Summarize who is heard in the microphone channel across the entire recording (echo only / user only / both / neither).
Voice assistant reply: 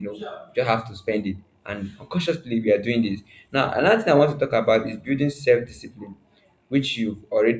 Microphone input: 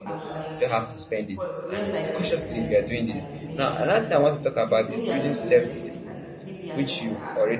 both